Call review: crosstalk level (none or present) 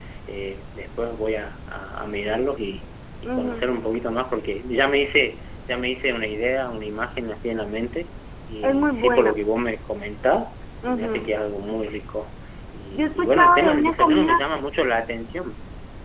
present